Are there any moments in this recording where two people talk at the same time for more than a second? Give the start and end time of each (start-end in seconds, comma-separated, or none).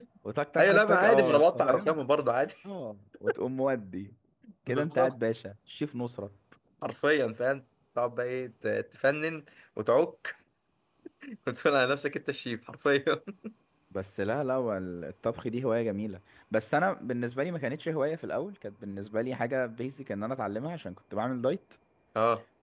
0.6-2.0